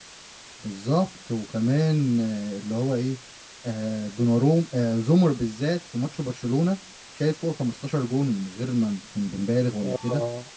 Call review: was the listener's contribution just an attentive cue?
Yes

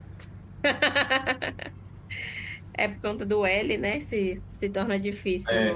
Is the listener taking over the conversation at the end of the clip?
Yes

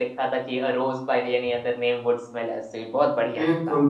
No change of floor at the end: No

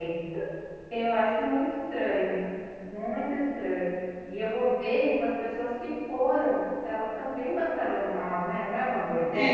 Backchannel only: No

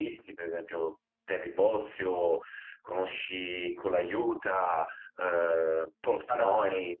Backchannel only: No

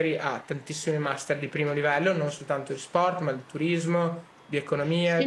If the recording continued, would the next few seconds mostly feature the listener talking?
No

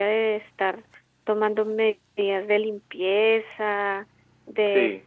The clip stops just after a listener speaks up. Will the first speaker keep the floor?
Yes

